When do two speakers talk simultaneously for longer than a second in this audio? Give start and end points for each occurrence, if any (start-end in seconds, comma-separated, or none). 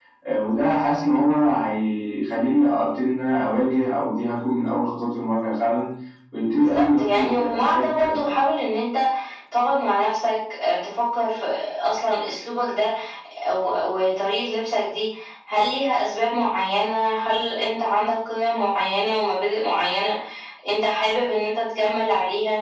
6.6-8.3